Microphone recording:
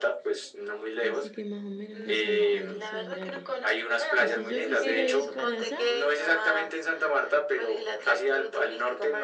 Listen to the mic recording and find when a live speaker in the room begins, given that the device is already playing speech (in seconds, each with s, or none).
1.0 s